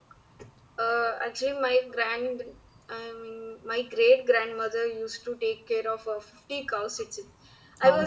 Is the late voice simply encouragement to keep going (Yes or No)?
Yes